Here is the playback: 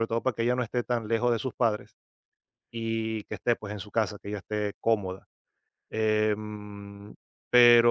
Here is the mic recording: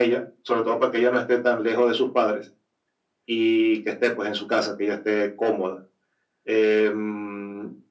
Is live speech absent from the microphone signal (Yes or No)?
Yes